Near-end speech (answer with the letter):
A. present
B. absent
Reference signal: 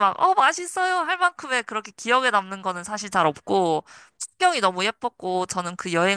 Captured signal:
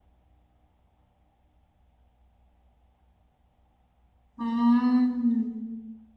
A